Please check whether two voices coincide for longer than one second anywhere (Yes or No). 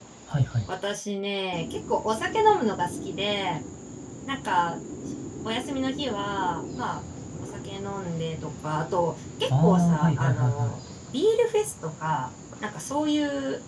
Yes